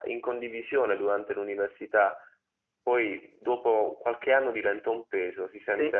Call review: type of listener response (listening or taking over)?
listening